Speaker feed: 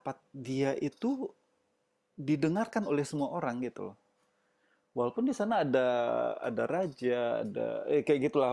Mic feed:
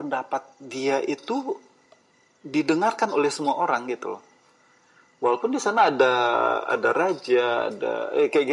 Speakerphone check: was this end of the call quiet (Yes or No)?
Yes